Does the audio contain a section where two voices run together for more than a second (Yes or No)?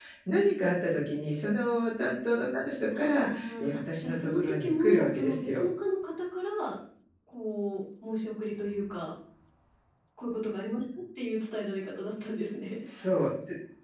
Yes